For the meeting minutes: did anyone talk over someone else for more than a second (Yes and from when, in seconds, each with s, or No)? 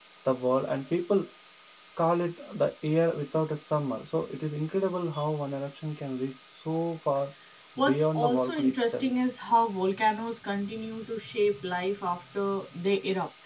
Yes, from 7.8 s